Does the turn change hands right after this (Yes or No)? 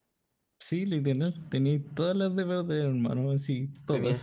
Yes